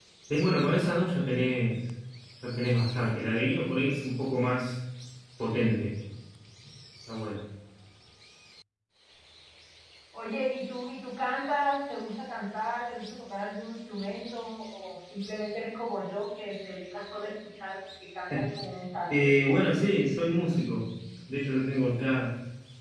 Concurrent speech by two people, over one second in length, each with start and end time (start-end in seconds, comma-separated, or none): none